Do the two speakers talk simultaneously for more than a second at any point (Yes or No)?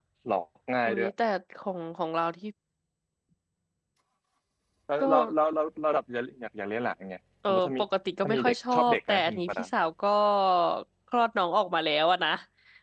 Yes